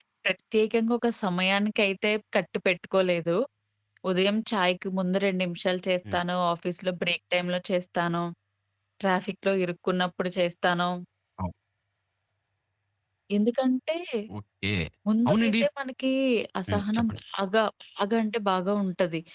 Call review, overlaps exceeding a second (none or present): none